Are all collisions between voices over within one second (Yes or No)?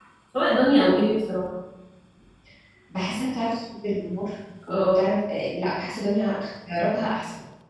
Yes